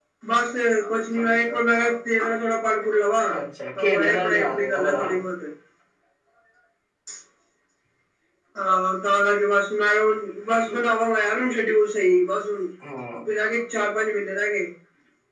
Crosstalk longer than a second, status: present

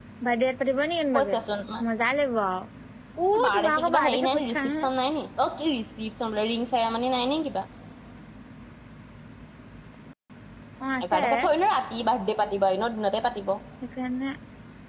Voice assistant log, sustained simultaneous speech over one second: present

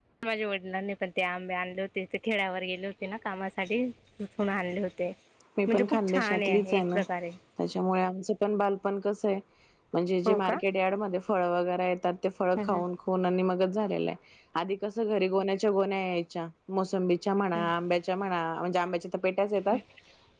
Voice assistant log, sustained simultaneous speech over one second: present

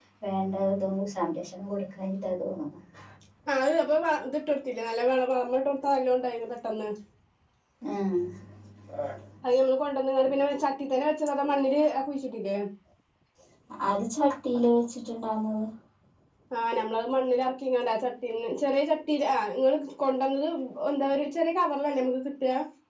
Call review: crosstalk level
none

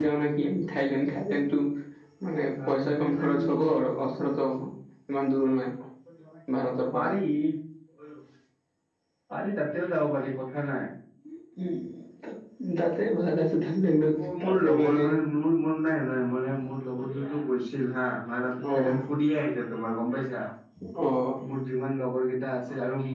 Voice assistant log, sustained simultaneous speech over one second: present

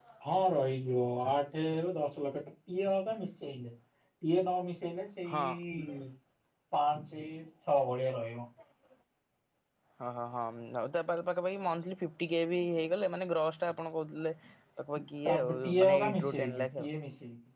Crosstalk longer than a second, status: present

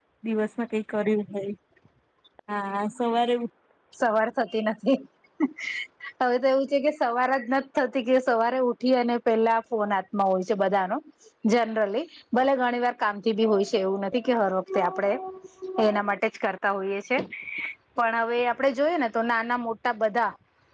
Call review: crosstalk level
none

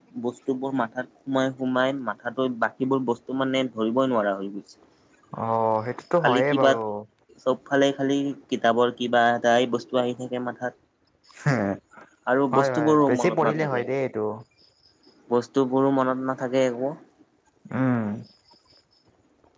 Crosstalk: present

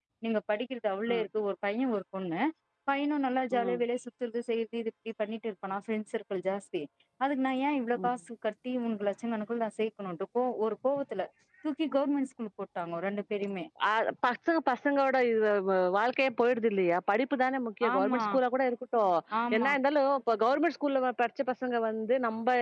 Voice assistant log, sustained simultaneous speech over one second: none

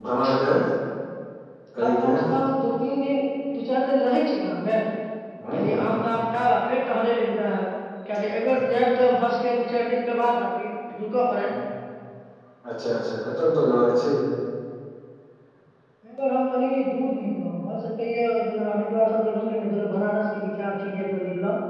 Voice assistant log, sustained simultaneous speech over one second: none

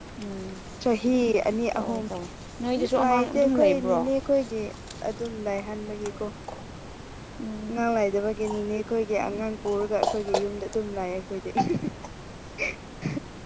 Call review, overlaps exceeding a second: present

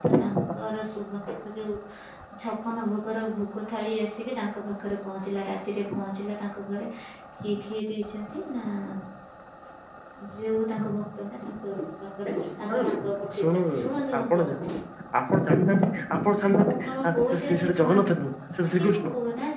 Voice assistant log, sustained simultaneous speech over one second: present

